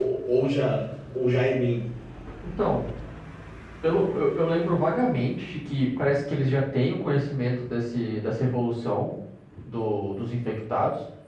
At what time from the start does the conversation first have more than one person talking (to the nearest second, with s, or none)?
none